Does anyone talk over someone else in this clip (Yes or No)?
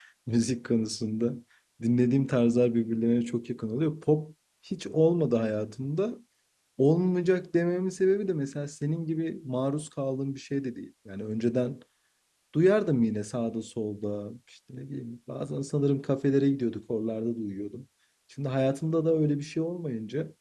No